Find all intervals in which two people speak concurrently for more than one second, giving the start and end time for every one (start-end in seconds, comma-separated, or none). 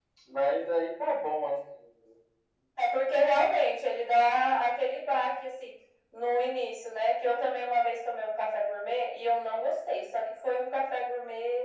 none